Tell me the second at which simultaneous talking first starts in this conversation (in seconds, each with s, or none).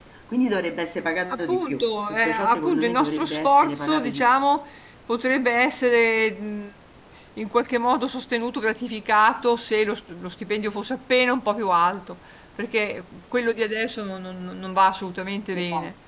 1.3 s